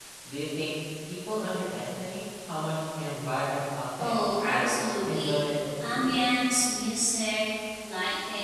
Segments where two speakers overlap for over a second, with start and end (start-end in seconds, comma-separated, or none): 4.0-5.4